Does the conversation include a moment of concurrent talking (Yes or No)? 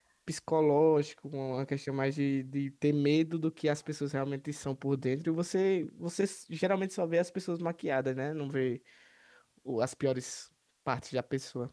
No